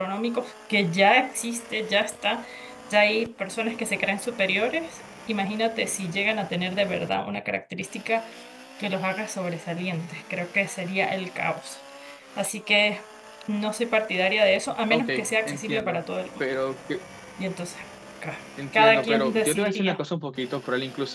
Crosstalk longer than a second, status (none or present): present